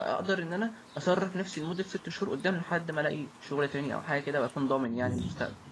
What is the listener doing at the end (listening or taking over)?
taking over